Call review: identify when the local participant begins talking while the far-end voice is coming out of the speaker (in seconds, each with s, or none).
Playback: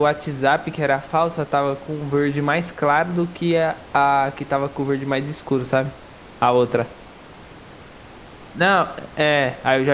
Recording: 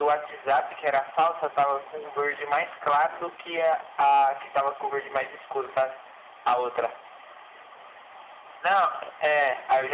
none